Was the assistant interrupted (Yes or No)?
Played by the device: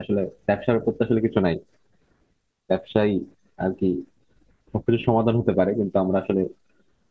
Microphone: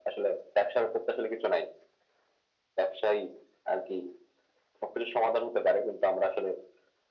No